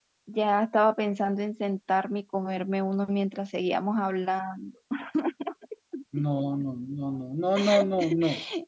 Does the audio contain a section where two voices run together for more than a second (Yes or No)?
No